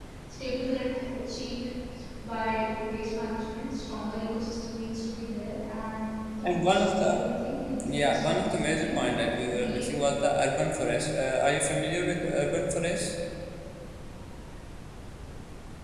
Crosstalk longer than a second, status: present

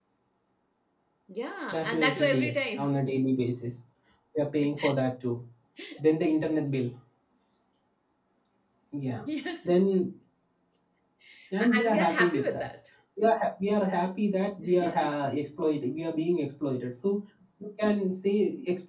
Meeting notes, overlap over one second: present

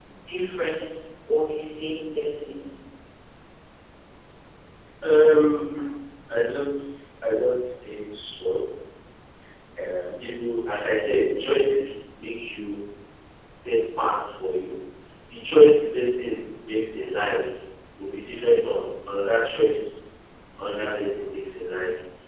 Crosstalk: none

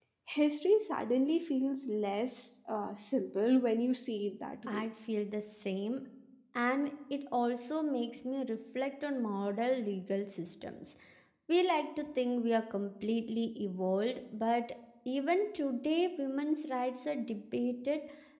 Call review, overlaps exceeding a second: none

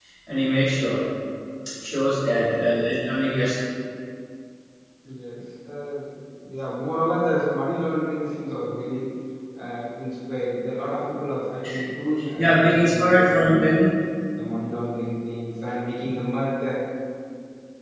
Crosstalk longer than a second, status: present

